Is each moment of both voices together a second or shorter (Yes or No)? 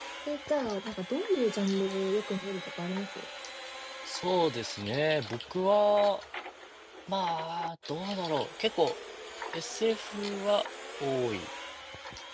Yes